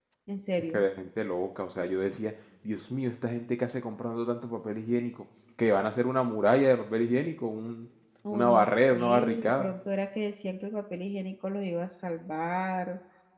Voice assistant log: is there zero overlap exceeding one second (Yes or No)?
No